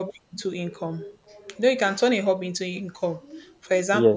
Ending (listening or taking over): listening